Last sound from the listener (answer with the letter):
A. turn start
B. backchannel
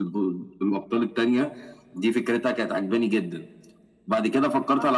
B